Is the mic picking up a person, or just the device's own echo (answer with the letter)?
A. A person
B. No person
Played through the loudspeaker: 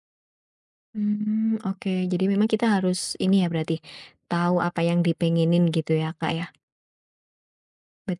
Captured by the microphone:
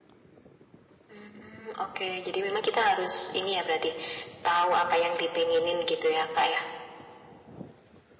B